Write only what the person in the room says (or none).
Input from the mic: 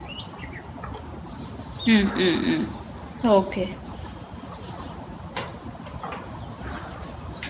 ம், ம், ம். ஓகே.